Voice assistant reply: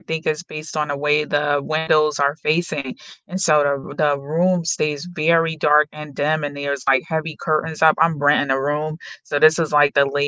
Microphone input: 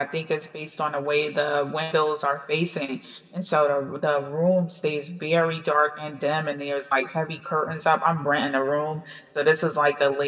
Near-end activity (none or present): none